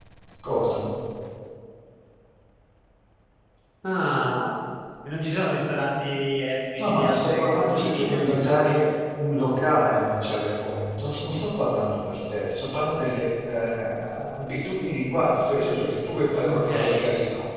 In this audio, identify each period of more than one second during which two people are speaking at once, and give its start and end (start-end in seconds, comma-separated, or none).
6.8-8.8